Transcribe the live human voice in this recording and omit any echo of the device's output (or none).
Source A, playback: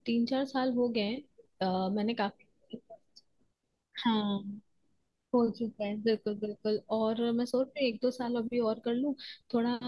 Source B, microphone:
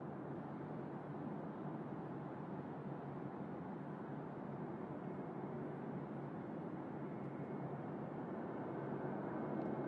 none